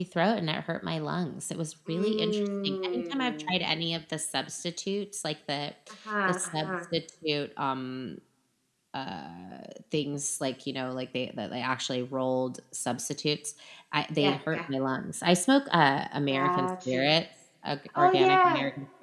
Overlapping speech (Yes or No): Yes